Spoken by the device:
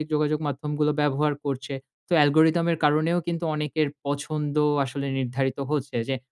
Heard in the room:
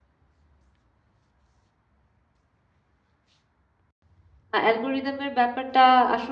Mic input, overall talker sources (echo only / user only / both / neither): user only